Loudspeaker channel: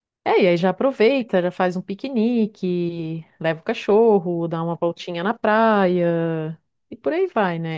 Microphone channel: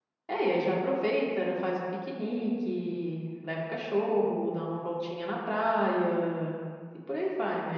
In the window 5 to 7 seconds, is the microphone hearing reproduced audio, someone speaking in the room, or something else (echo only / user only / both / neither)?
echo only